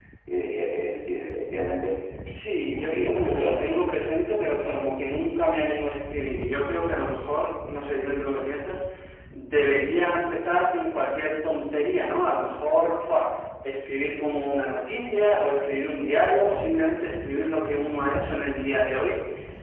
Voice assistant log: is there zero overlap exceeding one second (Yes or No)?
No